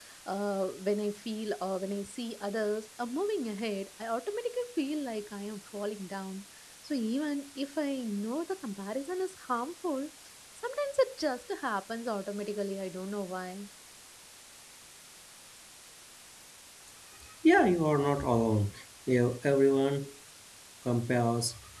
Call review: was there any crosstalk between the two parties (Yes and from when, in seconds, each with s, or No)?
No